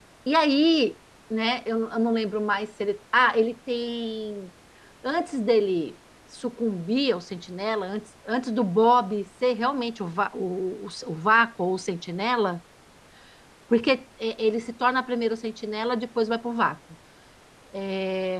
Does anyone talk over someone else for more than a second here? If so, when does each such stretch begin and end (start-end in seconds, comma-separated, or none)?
none